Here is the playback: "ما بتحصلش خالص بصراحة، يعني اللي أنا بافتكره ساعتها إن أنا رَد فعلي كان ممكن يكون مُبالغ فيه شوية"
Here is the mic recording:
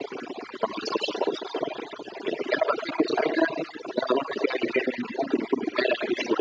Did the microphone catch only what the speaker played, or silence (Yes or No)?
Yes